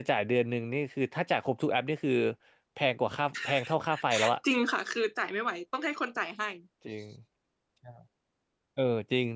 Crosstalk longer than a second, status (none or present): none